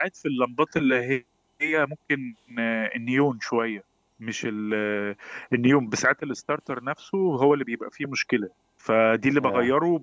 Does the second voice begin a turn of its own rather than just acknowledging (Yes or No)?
No